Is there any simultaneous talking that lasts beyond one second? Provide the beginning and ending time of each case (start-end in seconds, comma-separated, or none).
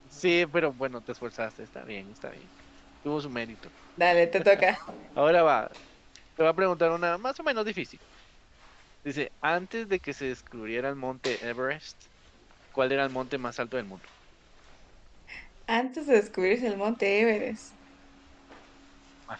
none